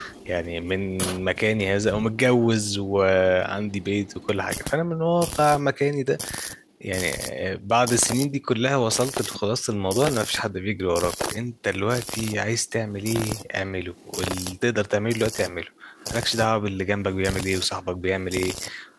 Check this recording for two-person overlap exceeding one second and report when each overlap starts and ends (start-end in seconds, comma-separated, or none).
none